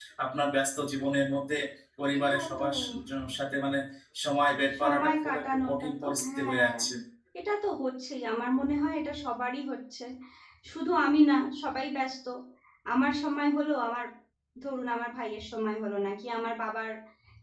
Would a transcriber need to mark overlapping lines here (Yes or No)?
Yes